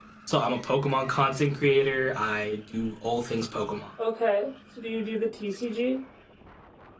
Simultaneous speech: No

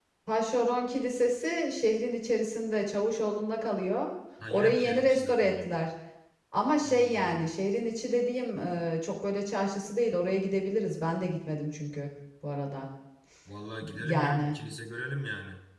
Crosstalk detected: Yes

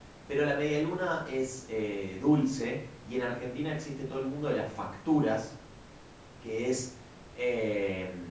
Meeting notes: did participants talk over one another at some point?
No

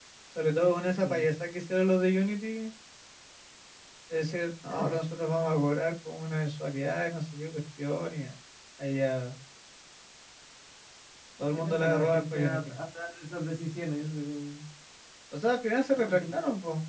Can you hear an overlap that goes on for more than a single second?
Yes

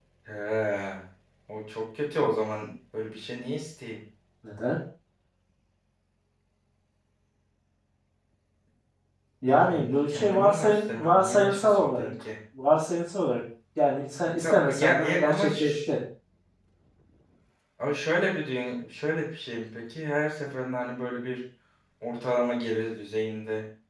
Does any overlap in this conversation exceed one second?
Yes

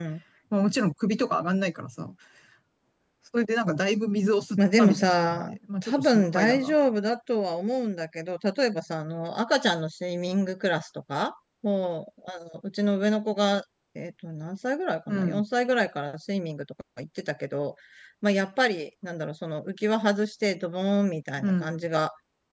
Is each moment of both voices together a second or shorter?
No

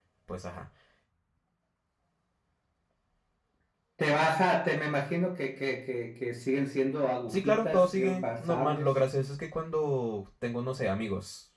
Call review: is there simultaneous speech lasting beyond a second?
Yes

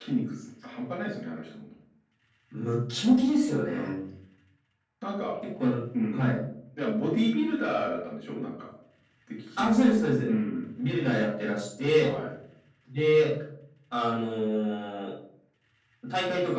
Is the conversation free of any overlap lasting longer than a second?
Yes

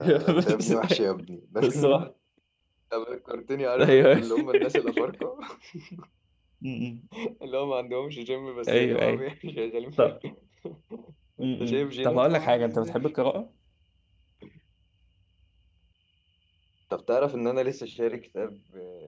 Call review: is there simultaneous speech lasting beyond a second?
Yes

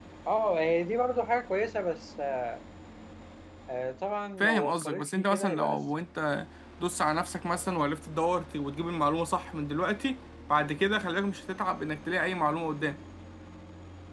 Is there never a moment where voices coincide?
No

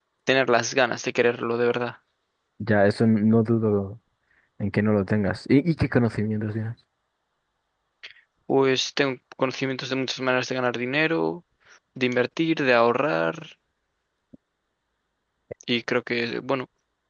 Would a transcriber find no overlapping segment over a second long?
Yes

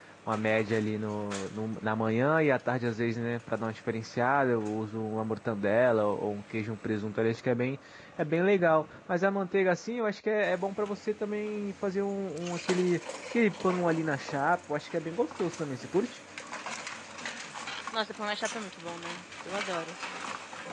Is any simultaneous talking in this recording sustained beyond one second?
No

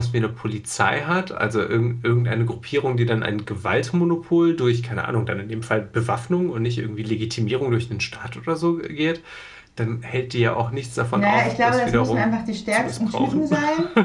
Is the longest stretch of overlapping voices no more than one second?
No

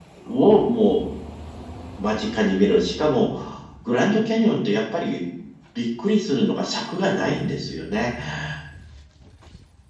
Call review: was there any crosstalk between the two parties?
No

